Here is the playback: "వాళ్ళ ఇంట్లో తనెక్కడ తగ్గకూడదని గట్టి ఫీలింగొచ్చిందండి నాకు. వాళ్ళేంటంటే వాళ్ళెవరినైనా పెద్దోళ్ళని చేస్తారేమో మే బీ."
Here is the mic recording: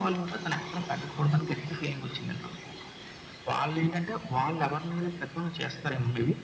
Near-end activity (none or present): none